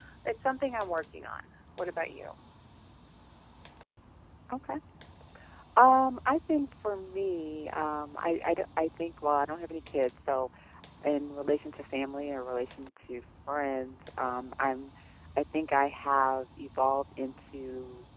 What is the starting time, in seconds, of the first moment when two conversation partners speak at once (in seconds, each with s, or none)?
none